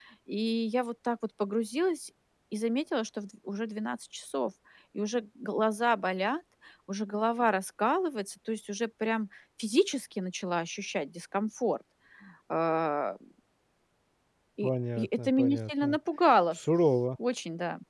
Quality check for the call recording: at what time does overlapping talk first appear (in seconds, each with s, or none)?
14.6 s